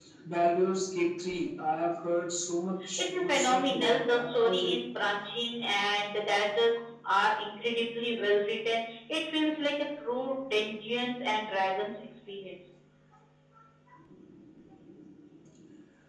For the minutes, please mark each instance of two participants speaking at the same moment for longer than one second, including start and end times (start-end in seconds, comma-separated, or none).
3.1-4.8